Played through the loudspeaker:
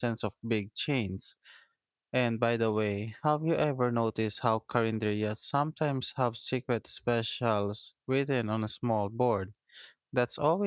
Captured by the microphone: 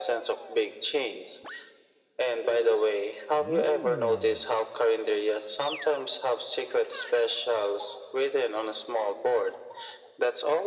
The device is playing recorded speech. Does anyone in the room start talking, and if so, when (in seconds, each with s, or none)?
none